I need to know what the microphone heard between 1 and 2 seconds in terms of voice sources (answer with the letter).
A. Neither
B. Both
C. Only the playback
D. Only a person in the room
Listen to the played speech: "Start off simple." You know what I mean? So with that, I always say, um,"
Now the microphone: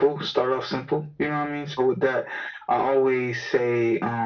C